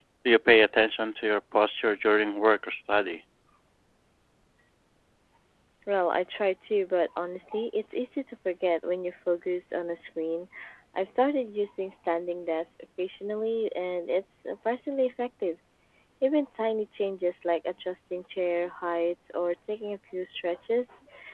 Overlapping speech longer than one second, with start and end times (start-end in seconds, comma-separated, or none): none